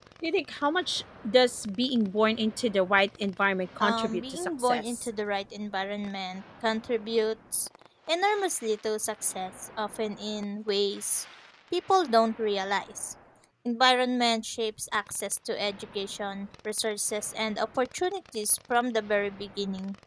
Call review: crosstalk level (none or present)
present